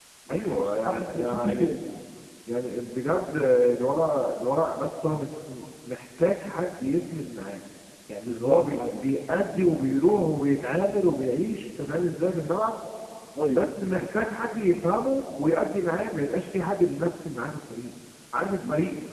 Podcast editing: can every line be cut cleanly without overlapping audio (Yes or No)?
No